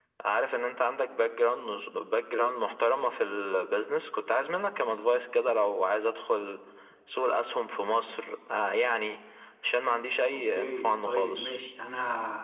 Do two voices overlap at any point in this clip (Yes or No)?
Yes